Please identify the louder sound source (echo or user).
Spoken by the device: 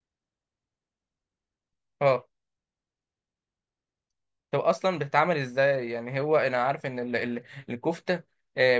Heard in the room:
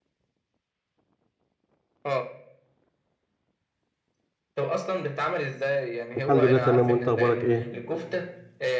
user